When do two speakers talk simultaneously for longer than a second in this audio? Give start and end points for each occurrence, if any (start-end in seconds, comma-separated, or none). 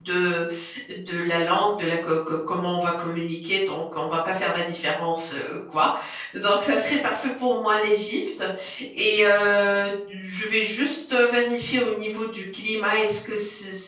none